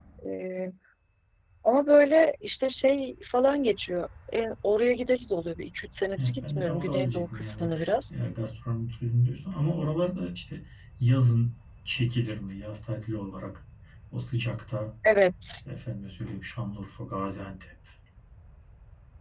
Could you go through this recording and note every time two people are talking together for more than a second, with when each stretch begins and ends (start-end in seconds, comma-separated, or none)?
6.2-7.7